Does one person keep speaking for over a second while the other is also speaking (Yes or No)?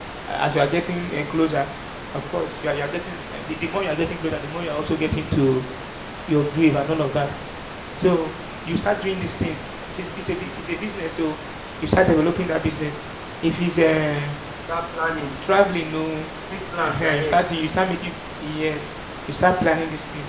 No